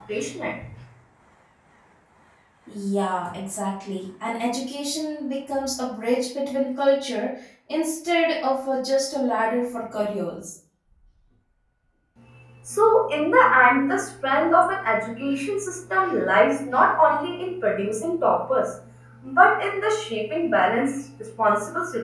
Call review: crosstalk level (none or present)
none